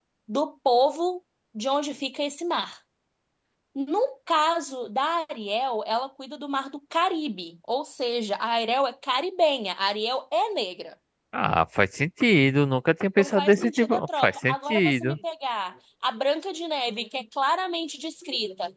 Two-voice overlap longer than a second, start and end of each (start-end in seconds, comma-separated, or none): 13.2-15.2